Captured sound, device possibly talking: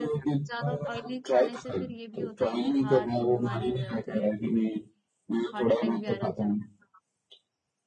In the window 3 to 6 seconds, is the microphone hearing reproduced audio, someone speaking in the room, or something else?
both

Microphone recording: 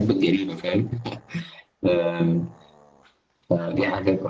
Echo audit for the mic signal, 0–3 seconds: echo only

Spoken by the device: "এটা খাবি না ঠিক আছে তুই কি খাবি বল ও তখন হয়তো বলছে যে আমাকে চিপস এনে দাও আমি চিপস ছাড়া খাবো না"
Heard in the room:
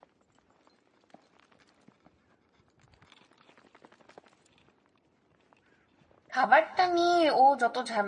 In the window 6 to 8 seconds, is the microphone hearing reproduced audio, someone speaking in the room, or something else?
user only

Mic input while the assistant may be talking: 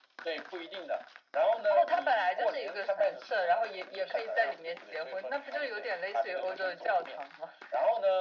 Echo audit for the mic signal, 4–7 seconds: echo only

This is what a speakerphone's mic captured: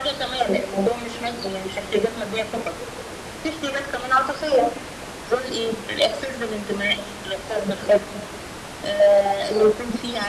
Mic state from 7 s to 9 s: echo only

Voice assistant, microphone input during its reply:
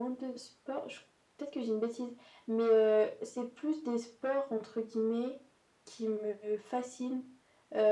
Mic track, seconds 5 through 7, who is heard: echo only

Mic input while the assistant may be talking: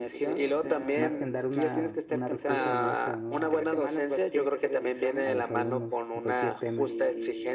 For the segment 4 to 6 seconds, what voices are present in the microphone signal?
both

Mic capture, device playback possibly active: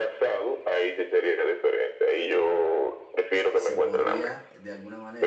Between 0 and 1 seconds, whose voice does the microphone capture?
echo only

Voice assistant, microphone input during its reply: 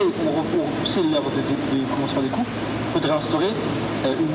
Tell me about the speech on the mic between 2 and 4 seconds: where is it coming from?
echo only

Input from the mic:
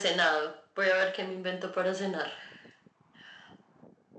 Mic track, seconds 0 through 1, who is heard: echo only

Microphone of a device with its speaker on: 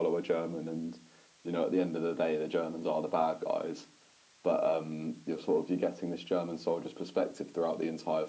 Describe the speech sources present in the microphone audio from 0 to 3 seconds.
echo only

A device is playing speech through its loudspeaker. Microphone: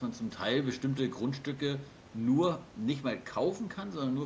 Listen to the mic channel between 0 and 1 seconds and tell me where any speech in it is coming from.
user only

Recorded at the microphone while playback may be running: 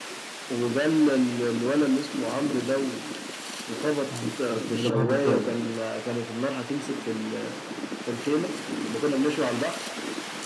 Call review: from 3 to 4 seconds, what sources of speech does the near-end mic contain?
echo only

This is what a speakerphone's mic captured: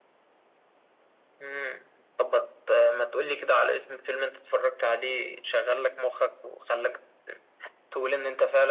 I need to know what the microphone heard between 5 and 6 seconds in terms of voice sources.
echo only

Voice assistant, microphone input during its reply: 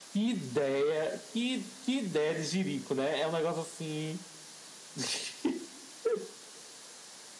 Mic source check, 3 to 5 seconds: echo only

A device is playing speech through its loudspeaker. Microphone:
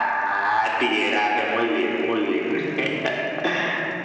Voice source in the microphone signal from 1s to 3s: echo only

